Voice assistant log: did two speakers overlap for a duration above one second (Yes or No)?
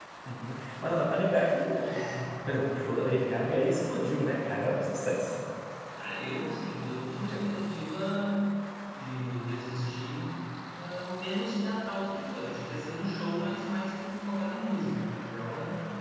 No